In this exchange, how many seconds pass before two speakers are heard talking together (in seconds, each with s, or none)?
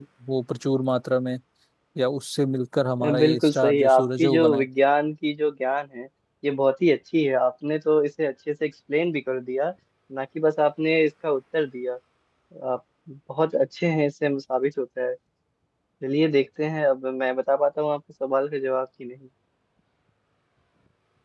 3.0 s